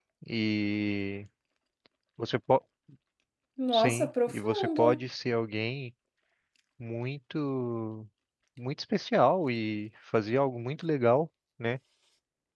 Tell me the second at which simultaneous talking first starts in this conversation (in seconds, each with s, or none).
3.7 s